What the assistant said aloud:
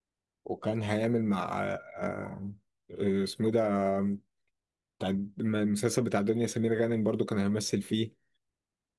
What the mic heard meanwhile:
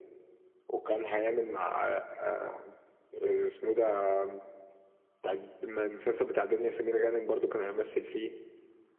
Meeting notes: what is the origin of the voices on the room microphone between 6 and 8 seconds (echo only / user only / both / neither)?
echo only